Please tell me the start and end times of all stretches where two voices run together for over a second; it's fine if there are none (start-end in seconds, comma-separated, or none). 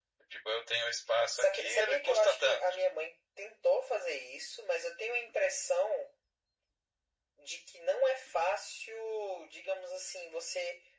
1.3-2.6